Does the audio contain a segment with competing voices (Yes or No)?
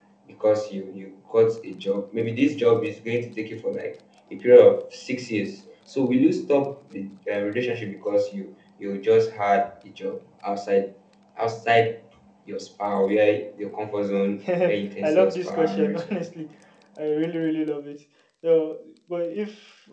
Yes